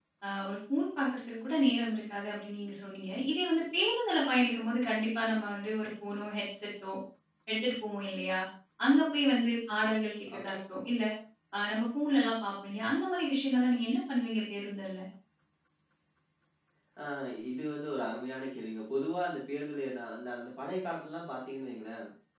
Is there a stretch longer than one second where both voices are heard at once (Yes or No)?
No